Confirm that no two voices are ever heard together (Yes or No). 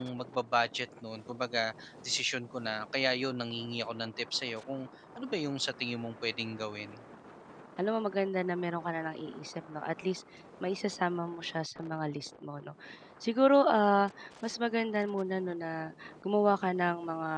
Yes